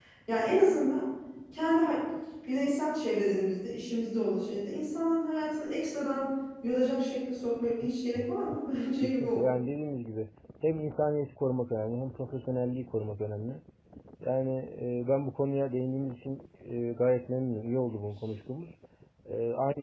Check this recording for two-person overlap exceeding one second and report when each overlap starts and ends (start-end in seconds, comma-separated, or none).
none